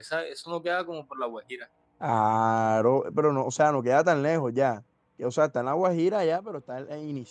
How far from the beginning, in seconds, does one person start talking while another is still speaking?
none

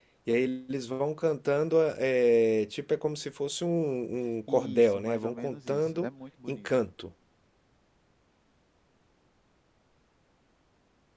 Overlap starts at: 4 s

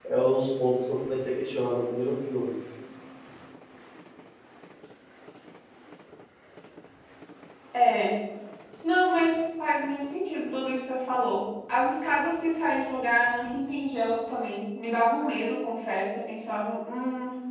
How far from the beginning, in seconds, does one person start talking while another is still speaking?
none

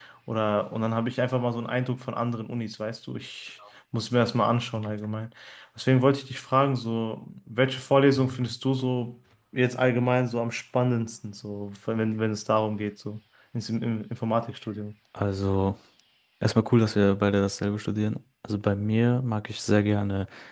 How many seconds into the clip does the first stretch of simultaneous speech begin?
none

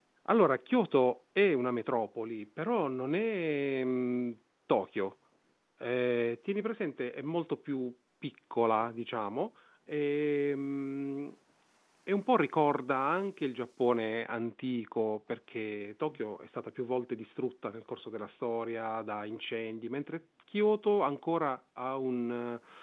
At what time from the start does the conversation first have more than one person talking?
none

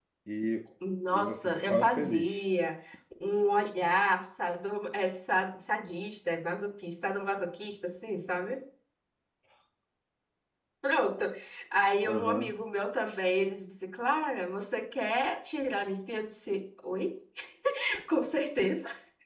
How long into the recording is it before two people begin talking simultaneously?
1 s

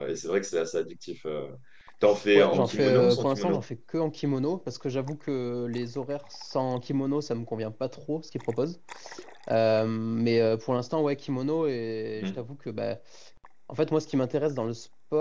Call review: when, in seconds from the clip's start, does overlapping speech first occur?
2 s

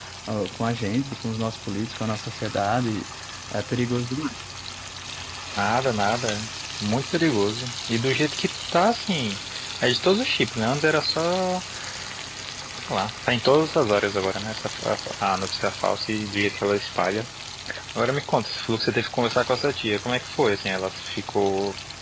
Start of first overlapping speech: none

